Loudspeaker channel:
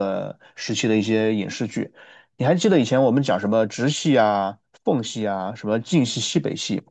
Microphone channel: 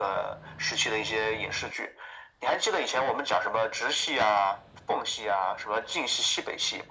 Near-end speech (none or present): none